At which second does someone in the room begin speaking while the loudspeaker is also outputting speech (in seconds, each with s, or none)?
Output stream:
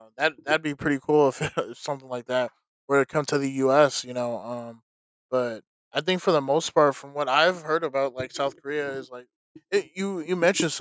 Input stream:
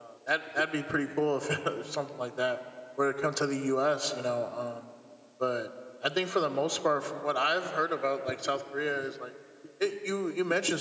none